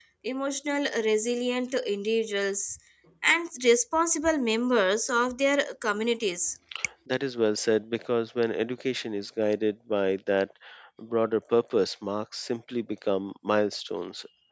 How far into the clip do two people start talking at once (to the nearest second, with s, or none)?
none